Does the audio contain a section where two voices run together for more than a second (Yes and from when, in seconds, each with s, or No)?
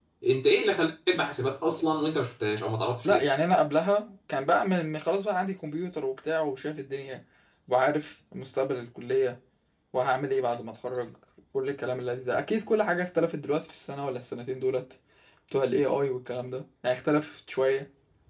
No